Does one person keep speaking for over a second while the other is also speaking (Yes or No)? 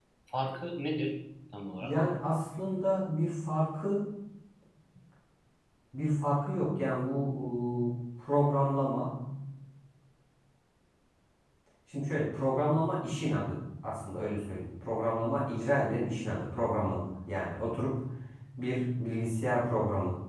No